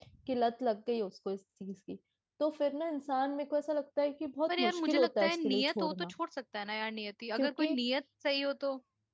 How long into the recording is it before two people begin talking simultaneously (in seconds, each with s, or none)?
4.5 s